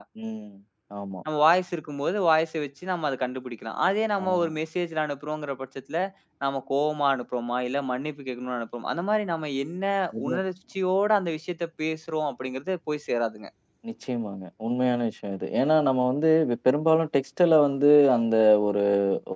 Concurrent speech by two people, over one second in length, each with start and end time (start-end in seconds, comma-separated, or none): none